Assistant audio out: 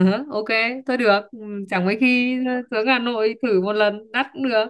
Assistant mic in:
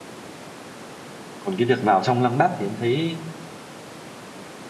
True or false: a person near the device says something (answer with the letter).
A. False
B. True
B